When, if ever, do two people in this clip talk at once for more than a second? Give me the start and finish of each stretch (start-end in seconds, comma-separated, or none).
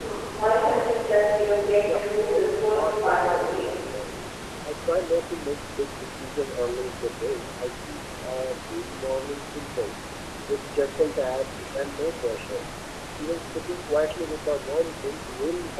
1.9-3.7